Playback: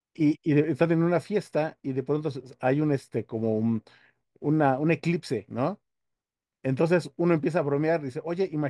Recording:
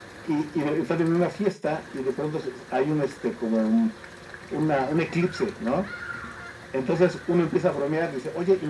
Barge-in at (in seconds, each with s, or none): none